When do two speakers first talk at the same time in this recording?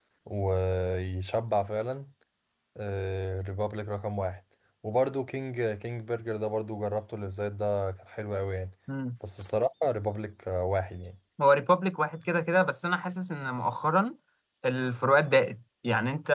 none

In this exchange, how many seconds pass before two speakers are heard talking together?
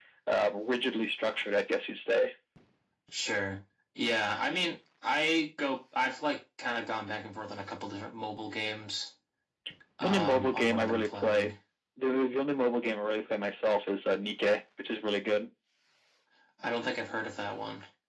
10.0 s

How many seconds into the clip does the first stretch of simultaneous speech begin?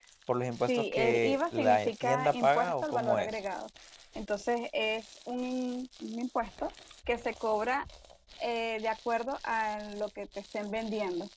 0.7 s

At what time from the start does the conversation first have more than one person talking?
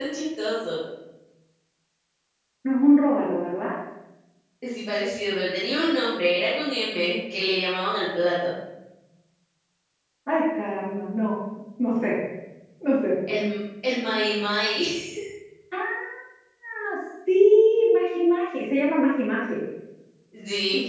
none

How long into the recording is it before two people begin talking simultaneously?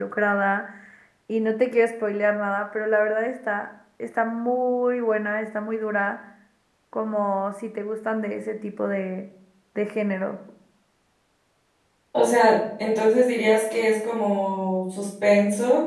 none

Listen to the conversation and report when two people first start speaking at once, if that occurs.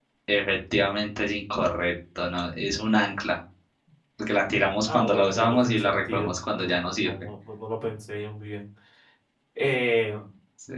4.9 s

